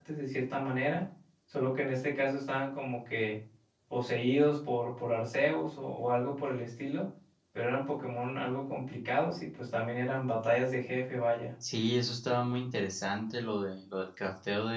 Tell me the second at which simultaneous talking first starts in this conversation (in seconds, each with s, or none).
none